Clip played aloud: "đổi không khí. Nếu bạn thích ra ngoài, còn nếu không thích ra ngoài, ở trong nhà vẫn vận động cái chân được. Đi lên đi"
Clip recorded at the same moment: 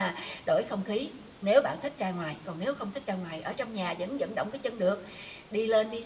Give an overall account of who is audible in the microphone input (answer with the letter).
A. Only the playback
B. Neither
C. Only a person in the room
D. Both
A